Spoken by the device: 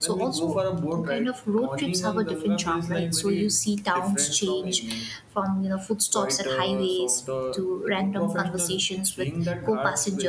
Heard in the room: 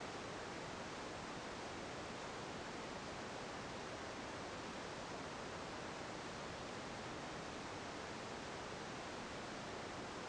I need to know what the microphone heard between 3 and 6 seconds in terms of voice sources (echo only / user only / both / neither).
neither